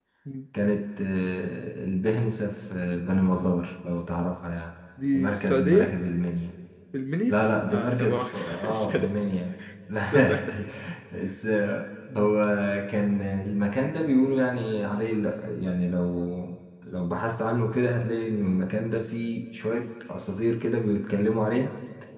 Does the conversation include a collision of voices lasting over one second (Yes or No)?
Yes